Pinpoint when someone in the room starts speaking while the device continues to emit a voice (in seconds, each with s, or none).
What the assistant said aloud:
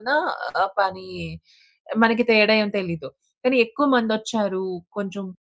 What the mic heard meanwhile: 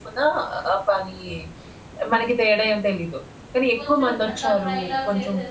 3.8 s